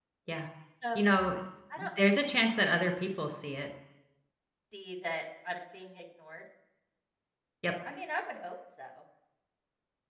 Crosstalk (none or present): none